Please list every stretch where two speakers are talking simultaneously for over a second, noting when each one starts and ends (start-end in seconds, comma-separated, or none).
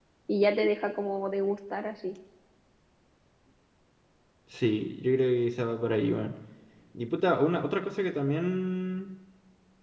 none